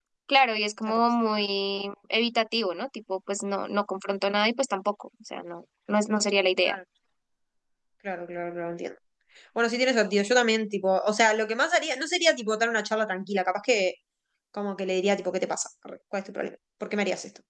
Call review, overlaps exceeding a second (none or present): none